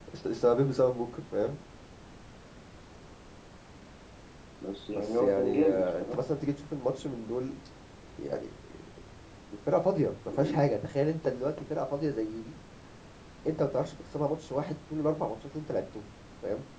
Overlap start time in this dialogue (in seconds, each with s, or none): 4.9 s